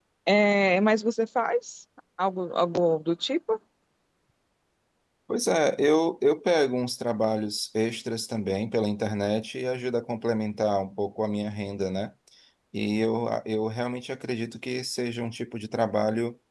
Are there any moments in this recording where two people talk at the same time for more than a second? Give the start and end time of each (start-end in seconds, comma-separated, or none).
none